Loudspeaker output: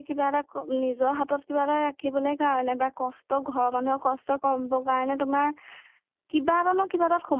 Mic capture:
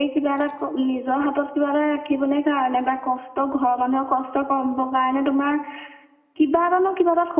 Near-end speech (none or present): none